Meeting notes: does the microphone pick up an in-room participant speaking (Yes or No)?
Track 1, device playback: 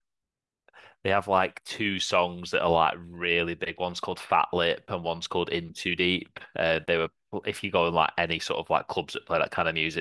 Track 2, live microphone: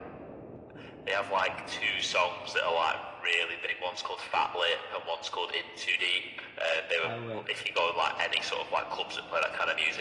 Yes